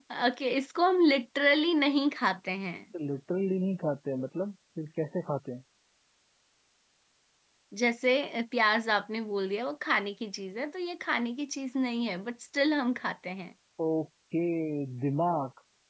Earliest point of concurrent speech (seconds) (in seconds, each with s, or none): none